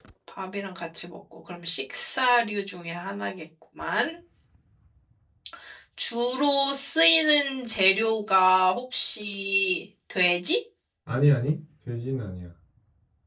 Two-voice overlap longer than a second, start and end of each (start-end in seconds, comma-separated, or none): none